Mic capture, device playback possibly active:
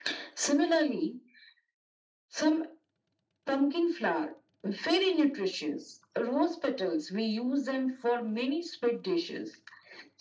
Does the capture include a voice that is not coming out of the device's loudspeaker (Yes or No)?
No